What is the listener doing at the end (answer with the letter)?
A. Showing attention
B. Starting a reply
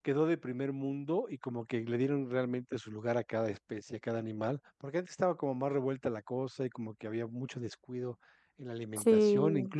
A